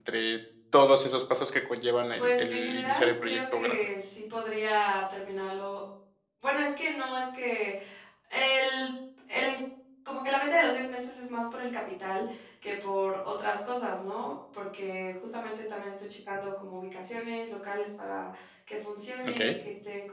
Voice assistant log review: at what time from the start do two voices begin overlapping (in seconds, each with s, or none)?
2.1 s